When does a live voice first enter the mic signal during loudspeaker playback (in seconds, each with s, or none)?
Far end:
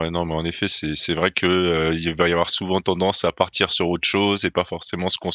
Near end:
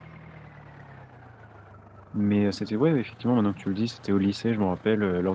2.1 s